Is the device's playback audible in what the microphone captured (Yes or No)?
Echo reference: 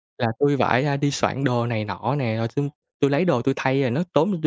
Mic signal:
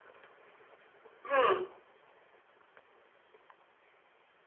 No